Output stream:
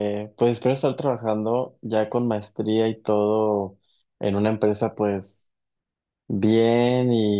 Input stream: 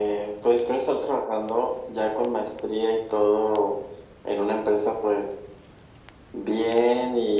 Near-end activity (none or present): none